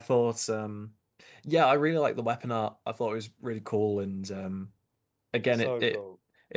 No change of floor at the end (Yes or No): Yes